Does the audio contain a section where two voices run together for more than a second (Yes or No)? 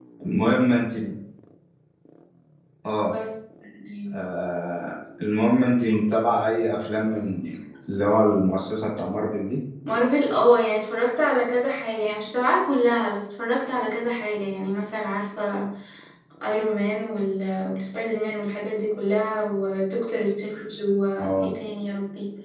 No